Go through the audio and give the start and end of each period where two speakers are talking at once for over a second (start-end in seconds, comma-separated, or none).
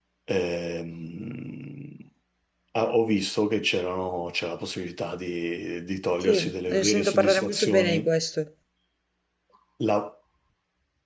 6.2-8.1